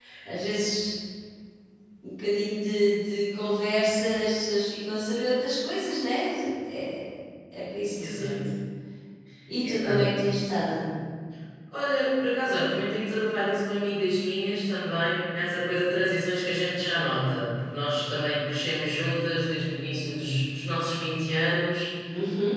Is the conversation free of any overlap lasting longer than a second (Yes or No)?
Yes